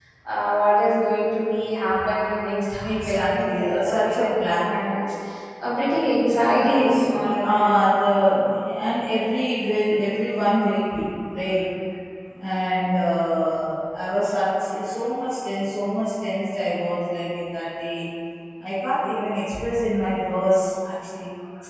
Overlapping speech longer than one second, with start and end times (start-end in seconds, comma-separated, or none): 2.8-4.6, 6.6-7.8